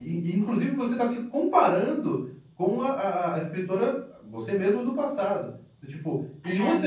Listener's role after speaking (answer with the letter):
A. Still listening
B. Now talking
A